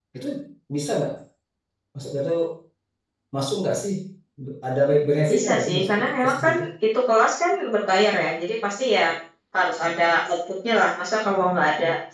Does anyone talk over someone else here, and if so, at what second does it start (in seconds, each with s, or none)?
5.3 s